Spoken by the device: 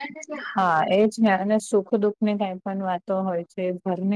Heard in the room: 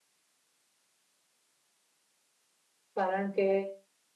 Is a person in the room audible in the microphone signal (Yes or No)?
Yes